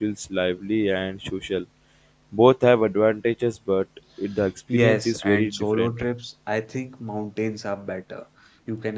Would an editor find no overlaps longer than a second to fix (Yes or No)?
No